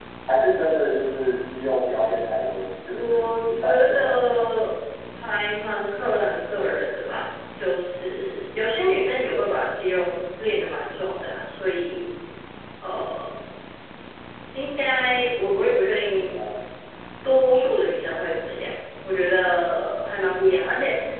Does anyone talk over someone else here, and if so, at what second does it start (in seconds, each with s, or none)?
3.0 s